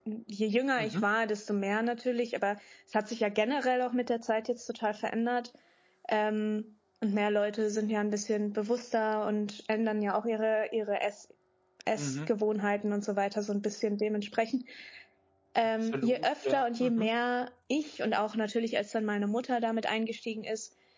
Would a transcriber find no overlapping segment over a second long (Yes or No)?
No